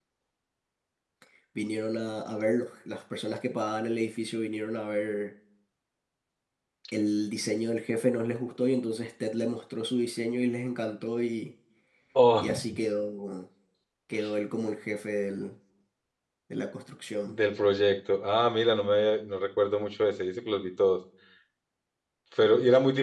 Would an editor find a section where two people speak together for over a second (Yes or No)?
No